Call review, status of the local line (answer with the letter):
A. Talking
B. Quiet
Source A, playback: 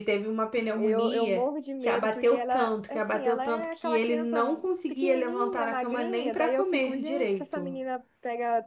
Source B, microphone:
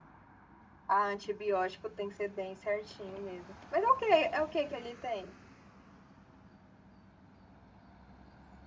A